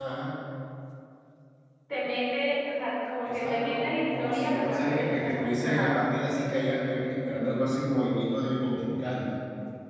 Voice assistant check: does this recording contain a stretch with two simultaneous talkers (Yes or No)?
Yes